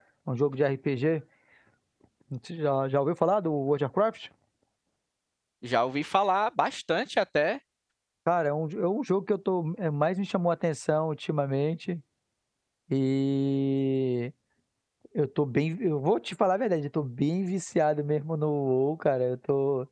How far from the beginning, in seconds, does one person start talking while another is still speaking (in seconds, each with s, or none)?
none